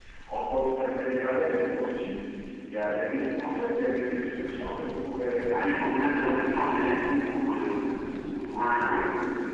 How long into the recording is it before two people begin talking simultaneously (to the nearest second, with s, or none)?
6 s